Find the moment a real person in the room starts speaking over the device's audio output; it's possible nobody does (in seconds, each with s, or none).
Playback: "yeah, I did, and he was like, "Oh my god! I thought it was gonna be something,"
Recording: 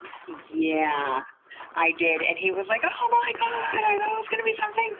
none